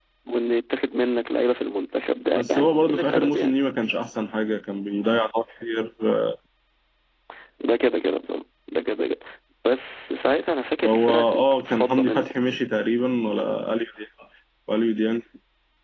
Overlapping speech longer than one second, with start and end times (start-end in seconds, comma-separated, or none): 2.4-3.6, 10.8-12.3